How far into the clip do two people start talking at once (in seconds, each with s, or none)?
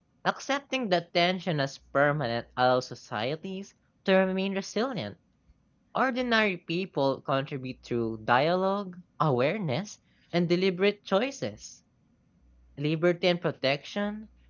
none